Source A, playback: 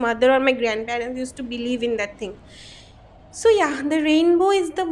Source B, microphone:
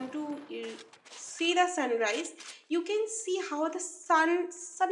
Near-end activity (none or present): present